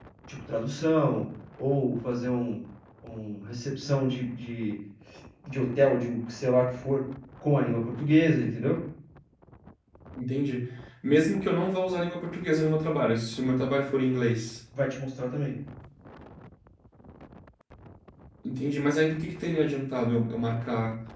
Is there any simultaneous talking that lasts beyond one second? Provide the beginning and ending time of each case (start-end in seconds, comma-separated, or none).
none